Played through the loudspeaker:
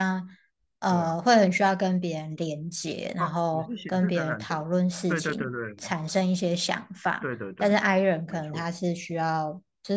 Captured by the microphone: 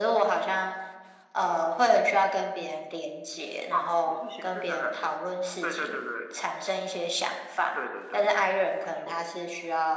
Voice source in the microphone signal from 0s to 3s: echo only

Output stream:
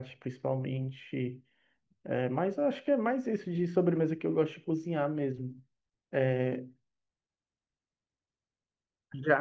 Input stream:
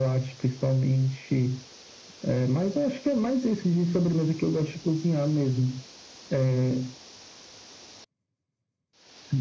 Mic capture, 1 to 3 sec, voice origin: echo only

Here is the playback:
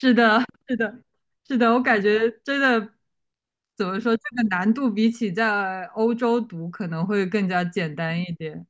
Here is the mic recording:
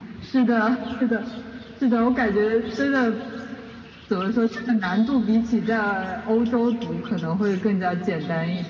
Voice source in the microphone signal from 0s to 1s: echo only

